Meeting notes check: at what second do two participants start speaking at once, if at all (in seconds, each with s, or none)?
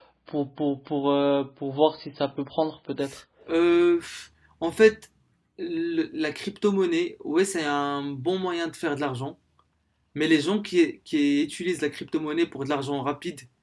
none